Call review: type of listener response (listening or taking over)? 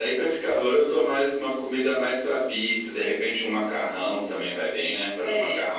listening